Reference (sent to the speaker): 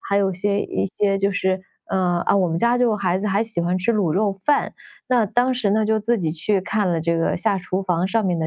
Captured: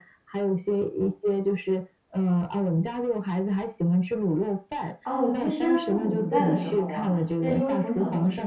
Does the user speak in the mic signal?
Yes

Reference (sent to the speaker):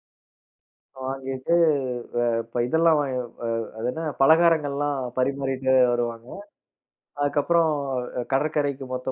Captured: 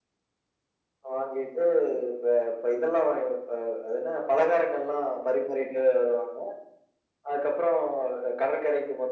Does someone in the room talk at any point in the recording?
No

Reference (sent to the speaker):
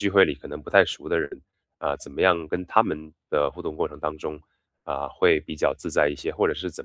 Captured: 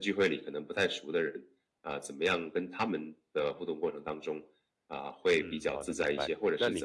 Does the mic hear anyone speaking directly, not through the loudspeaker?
Yes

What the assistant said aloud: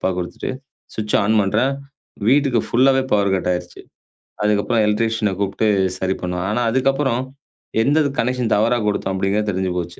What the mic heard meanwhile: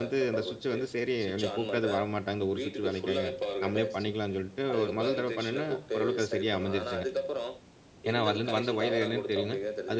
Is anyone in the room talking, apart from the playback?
Yes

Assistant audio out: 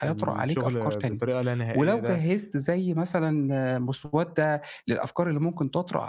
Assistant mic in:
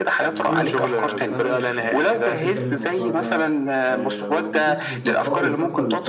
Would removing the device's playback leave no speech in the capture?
No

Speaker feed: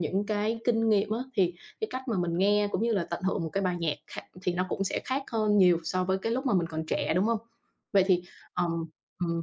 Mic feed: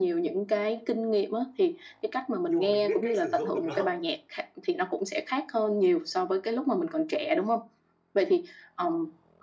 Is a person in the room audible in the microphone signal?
Yes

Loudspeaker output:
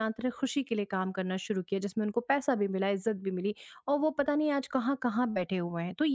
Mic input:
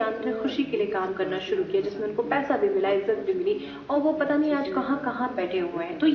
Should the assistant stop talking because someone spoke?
Yes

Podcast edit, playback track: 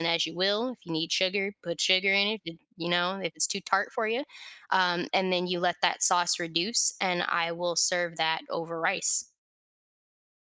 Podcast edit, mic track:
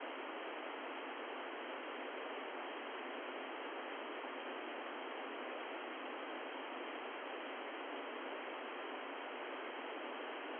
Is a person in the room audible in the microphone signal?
No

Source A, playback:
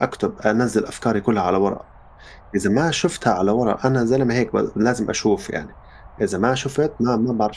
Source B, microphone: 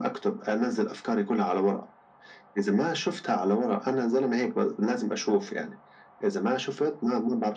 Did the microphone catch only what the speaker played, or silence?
Yes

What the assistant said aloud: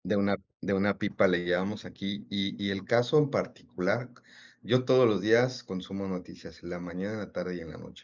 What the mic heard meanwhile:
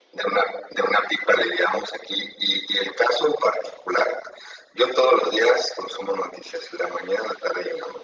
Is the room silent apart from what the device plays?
Yes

